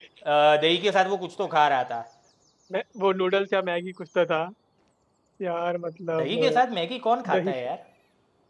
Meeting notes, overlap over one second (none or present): none